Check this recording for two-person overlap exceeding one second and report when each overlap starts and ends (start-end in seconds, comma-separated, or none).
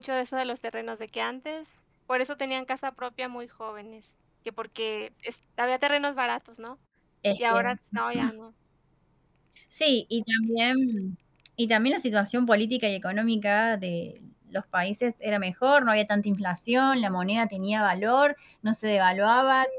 none